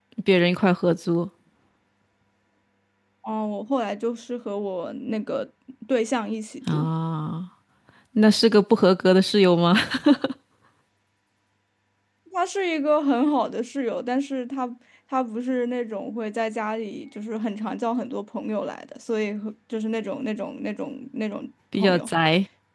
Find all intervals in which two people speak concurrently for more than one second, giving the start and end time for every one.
none

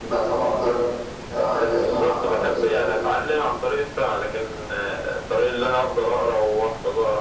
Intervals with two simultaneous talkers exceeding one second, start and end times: 1.7-3.0

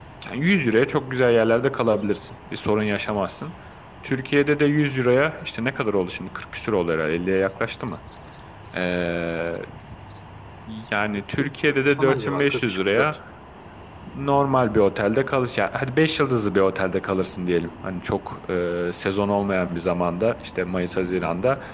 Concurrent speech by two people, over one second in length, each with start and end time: 11.4-13.1

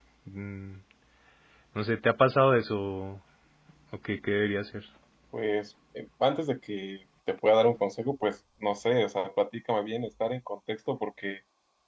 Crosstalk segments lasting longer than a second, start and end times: none

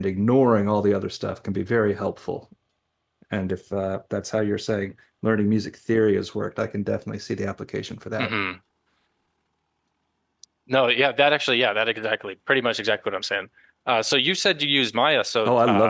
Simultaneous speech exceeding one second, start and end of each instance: none

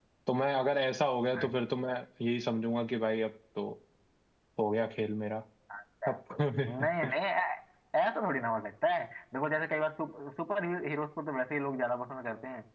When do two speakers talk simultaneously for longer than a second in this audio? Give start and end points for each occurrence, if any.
none

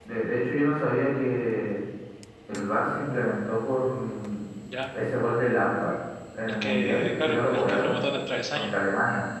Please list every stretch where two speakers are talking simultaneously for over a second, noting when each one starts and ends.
6.6-7.9

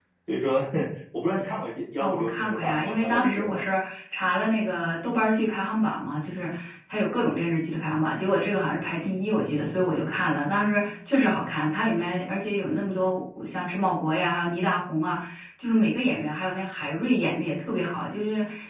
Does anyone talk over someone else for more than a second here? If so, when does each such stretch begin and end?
2.0-3.6

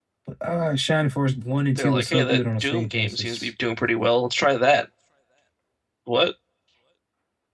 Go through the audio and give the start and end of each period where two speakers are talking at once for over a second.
1.8-3.5

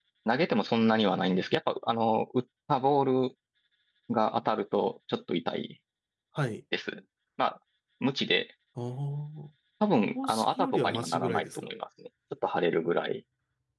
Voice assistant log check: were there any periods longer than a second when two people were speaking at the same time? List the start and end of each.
10.2-11.6

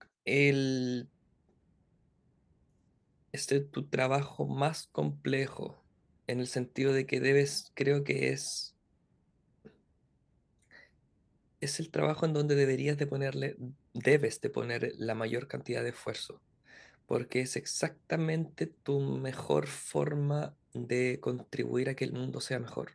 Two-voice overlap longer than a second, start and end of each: none

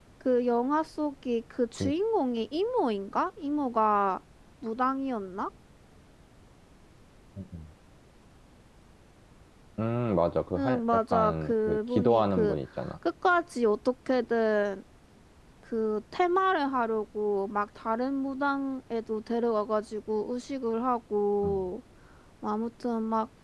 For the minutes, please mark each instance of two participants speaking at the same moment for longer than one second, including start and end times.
10.6-12.6

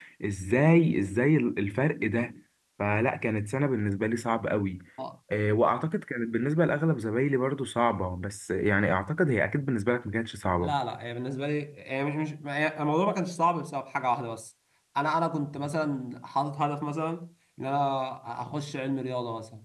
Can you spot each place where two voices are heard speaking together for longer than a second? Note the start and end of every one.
none

